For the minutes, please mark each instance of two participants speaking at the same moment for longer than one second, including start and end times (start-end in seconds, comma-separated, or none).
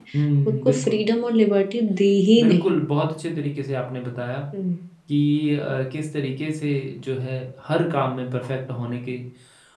none